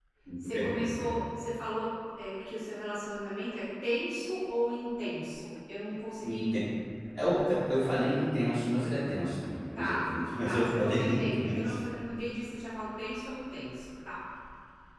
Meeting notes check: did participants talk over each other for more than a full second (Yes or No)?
Yes